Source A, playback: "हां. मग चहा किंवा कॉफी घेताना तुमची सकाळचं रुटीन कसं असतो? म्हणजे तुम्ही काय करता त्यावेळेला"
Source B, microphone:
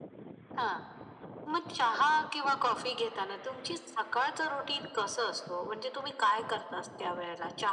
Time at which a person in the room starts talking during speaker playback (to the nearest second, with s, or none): none